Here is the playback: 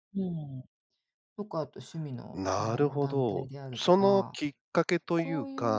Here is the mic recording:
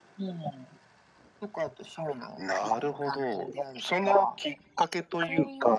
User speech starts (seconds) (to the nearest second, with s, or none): none